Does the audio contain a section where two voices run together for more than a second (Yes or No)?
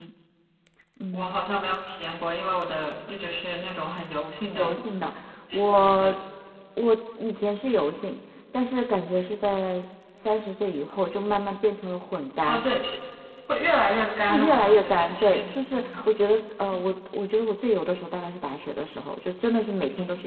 Yes